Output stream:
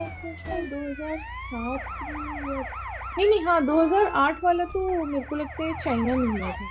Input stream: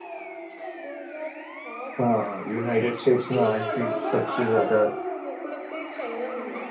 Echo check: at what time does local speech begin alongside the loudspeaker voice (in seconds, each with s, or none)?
2.0 s